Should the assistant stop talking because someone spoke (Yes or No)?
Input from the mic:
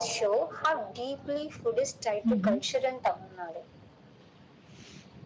Yes